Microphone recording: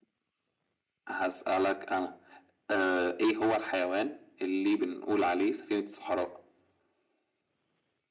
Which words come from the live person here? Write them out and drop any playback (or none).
none